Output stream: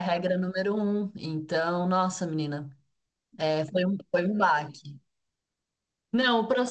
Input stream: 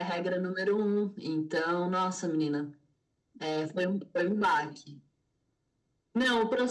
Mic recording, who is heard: echo only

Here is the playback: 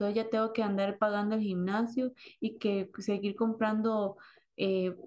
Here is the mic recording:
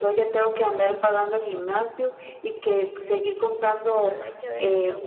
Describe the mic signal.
both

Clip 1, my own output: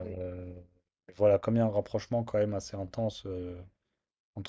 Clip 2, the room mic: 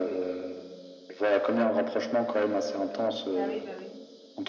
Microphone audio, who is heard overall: both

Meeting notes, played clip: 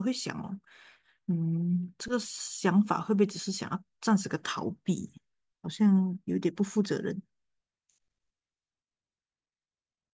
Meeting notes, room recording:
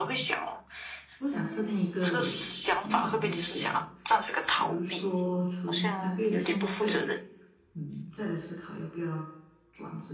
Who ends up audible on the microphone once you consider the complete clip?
both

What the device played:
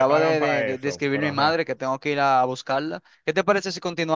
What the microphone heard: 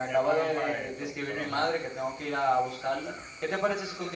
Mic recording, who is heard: echo only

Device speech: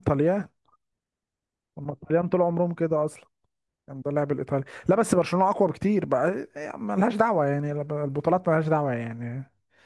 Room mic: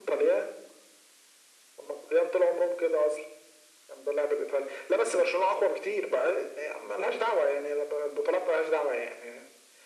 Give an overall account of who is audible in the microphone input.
echo only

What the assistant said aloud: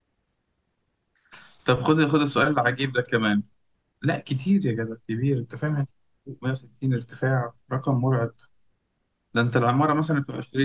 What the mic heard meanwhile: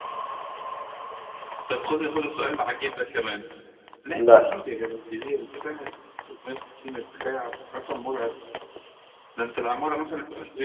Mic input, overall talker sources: both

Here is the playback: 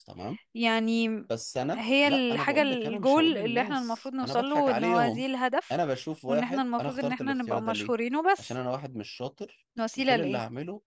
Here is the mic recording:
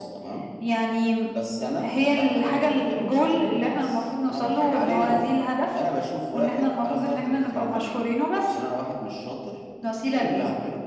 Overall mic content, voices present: echo only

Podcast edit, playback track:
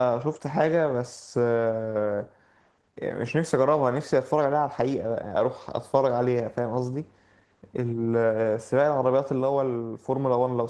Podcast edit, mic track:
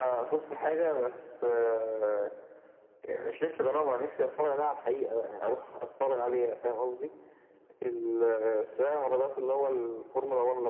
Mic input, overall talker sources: echo only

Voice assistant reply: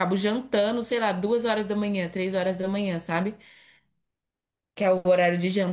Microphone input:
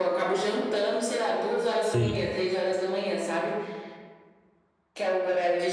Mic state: both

